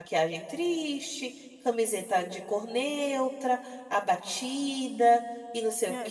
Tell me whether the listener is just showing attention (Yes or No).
No